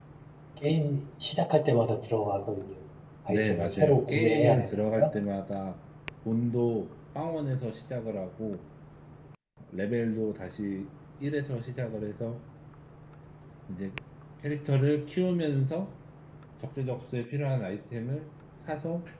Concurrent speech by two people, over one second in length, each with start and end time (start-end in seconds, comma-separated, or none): 3.3-5.1